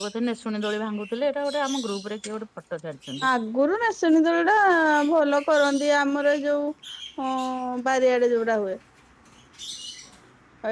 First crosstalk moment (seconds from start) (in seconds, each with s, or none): none